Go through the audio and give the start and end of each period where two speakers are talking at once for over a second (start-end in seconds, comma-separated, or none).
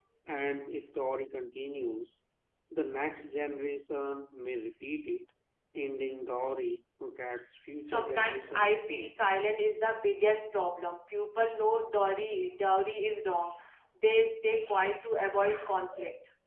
7.8-9.2